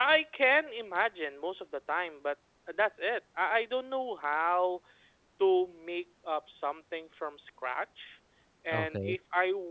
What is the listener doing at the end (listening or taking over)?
listening